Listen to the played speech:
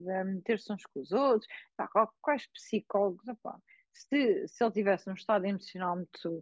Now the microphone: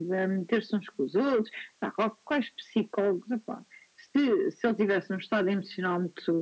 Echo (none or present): present